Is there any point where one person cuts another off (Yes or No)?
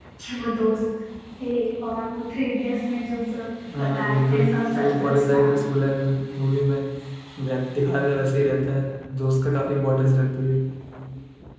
Yes